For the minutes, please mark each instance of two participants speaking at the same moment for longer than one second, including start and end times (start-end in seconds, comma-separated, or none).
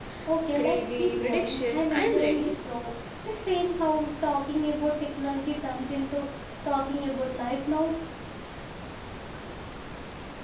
0.6-2.5